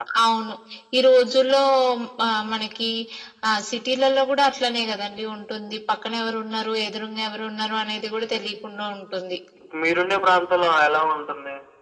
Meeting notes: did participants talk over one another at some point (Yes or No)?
No